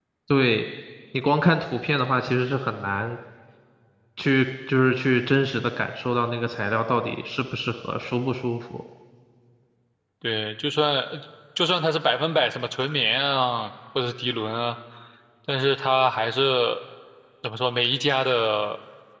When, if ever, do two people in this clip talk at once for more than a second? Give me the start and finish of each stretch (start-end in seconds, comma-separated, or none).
none